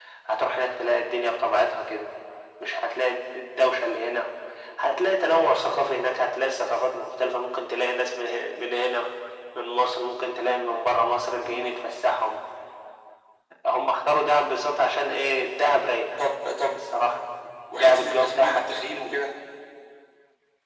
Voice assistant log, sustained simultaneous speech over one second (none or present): present